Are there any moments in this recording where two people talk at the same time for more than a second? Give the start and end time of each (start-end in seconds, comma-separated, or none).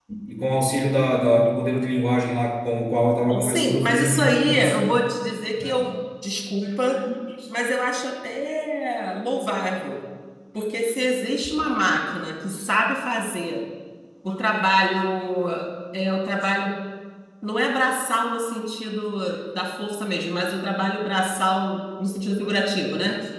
3.3-4.8